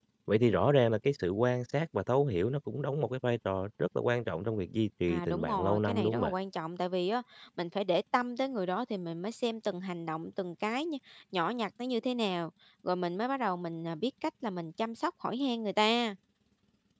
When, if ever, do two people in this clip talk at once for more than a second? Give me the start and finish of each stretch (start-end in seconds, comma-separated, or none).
5.1-6.3